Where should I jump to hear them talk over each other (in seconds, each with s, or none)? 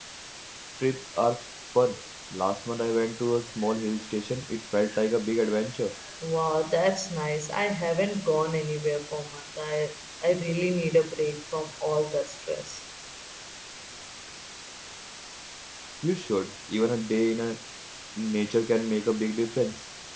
none